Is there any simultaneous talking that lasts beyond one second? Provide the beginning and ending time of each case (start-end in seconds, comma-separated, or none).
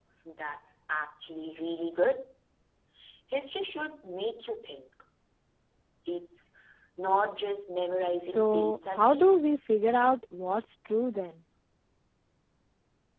8.2-9.5